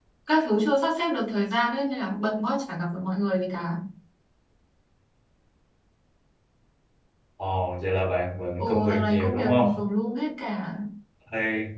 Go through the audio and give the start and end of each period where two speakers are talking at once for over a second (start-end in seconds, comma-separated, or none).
8.6-9.8